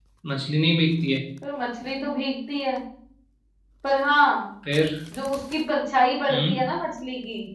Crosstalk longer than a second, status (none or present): none